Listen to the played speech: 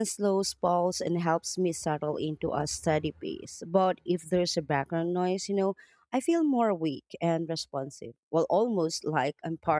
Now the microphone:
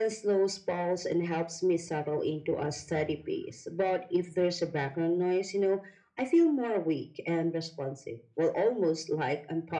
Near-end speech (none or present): none